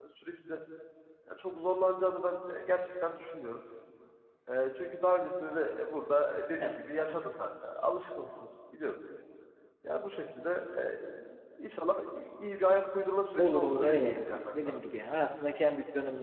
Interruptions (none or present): present